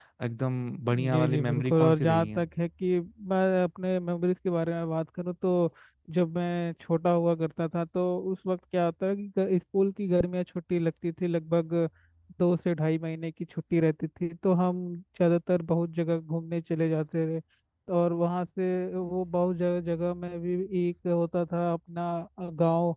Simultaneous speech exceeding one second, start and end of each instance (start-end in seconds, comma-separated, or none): 1.1-2.4